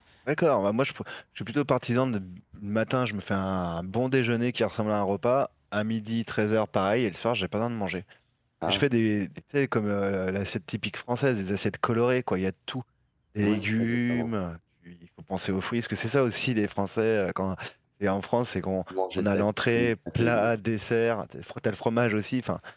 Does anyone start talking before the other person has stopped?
Yes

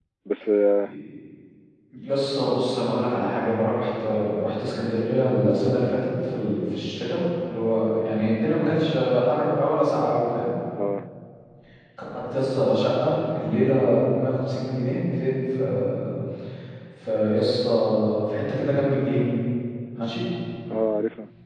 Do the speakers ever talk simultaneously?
No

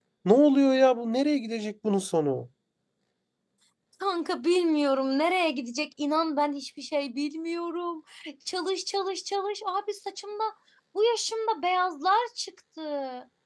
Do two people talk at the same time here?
No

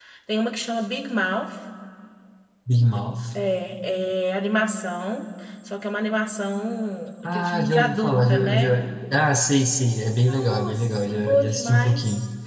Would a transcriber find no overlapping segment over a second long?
No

